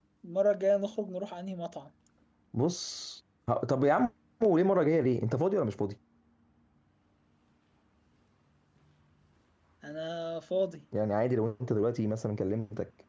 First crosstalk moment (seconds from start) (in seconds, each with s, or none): none